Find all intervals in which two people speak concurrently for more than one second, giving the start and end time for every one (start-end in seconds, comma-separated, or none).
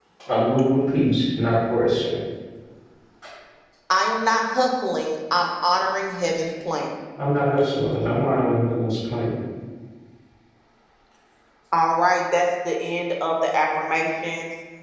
none